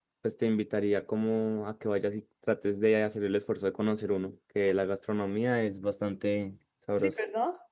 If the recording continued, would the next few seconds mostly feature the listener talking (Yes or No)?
Yes